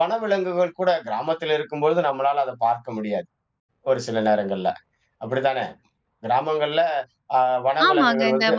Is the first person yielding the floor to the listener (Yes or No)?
Yes